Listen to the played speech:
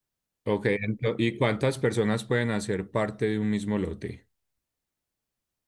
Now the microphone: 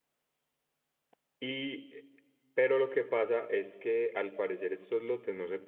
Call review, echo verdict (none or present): none